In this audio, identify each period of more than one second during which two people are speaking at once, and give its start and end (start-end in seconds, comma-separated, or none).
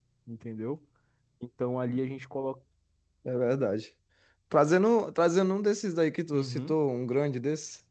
none